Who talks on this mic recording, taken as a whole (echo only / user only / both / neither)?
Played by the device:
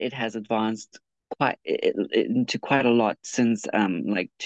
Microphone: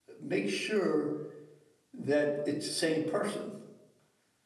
user only